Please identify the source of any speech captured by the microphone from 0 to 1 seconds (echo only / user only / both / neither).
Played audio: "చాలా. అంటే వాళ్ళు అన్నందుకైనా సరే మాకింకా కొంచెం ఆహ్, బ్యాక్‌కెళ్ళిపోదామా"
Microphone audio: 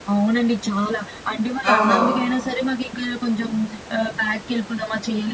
echo only